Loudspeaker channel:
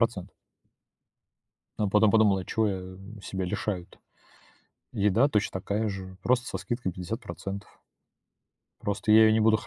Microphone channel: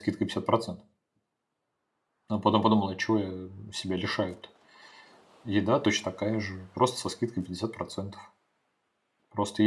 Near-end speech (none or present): none